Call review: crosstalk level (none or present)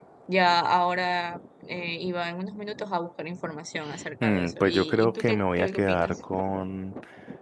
present